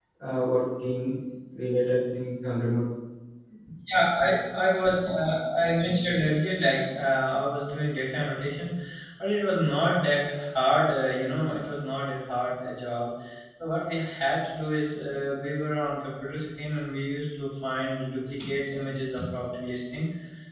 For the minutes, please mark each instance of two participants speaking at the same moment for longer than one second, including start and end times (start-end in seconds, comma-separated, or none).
none